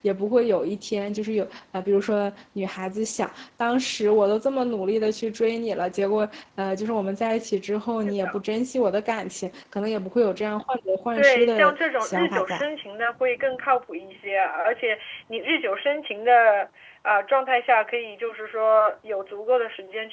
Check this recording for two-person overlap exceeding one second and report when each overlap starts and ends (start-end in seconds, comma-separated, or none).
11.2-12.6